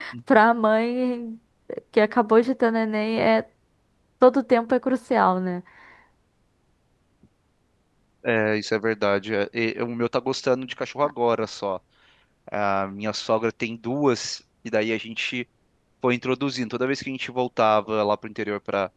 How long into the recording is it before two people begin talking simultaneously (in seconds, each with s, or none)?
none